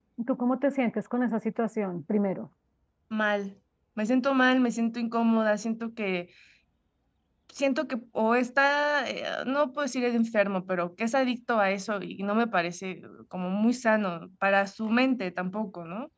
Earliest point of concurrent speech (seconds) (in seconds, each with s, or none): none